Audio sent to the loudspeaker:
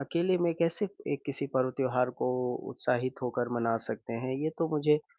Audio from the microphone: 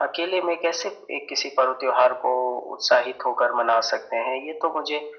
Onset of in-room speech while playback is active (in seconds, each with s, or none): none